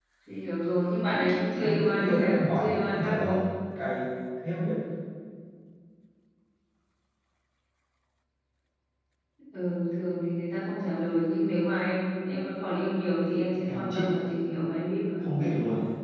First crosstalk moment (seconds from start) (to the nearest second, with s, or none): 2 s